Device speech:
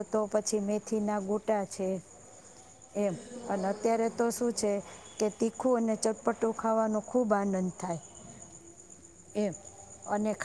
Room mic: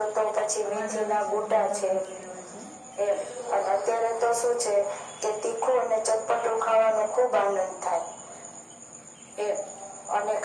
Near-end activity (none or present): present